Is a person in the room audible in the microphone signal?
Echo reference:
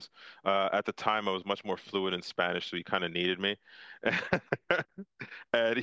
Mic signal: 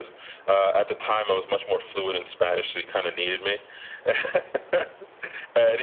No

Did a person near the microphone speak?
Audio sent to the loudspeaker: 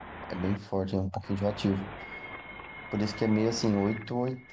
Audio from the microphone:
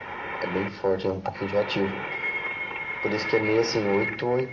No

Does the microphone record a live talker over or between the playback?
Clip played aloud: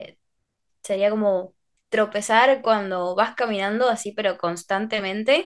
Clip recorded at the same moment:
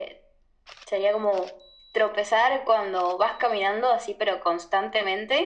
No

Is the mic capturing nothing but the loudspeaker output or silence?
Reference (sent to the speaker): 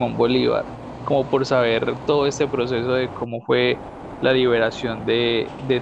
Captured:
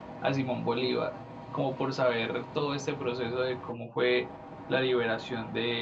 Yes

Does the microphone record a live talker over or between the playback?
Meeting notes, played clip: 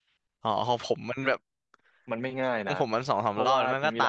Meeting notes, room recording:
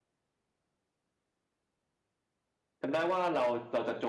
Yes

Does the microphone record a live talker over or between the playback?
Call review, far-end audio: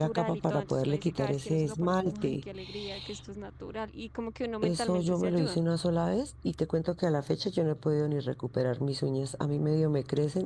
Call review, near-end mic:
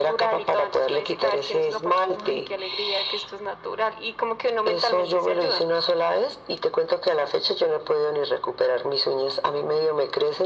No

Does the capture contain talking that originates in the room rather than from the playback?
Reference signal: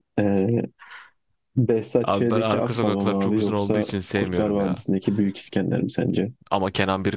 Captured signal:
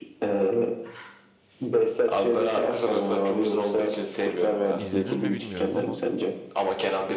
Yes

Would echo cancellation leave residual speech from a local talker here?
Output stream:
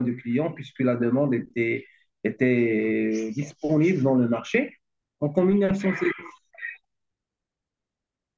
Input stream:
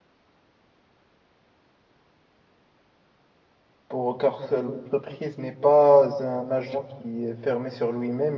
Yes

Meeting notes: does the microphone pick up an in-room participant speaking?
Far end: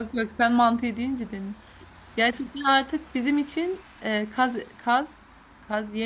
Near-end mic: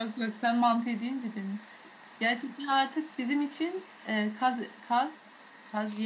No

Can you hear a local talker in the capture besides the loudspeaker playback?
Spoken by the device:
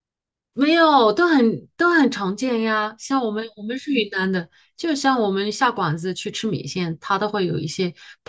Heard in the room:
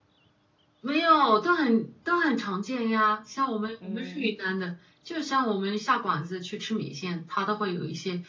Yes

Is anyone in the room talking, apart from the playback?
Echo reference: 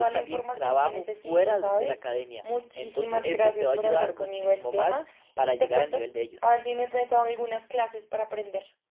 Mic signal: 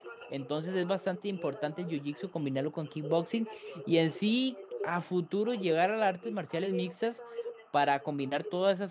Yes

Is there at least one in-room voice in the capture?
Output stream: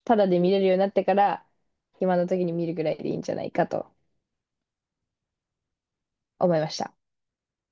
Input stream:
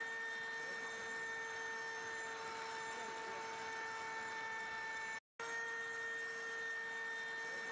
No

